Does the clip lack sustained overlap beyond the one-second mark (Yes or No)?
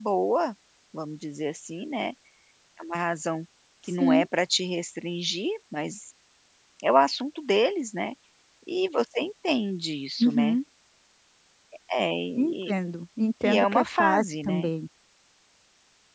No